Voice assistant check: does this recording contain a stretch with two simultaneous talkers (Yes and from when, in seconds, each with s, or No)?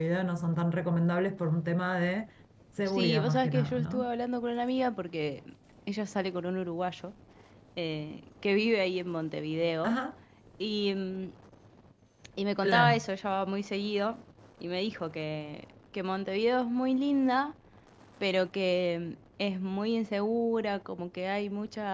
Yes, from 2.8 s